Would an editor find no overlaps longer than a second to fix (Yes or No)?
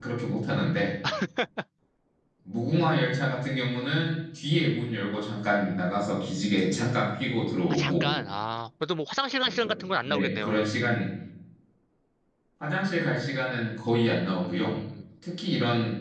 No